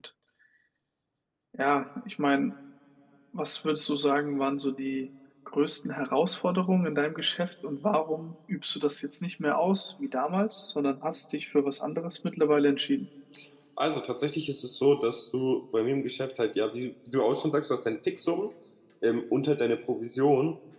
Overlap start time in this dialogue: none

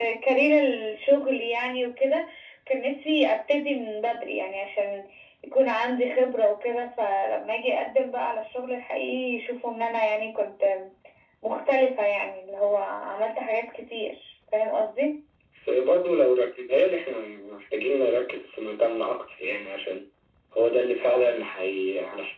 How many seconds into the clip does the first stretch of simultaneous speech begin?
none

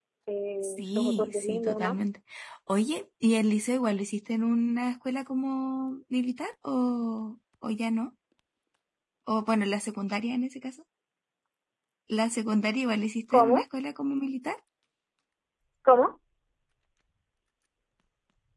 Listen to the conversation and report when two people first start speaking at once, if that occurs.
0.6 s

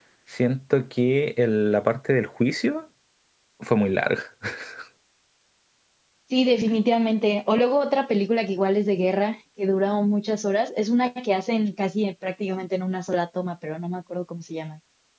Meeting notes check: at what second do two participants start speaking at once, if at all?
none

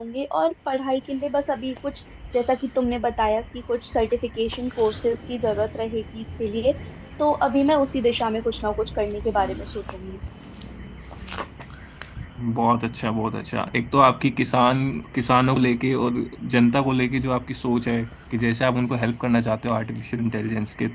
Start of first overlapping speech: none

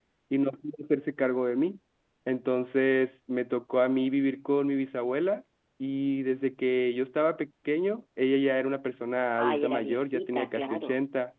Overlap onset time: 9.4 s

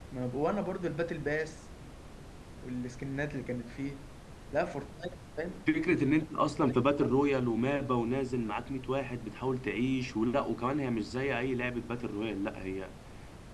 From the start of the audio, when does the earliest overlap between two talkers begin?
none

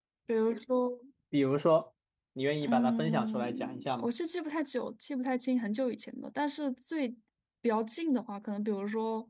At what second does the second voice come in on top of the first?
2.6 s

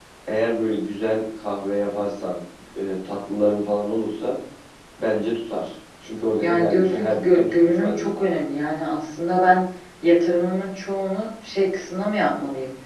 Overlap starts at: 6.4 s

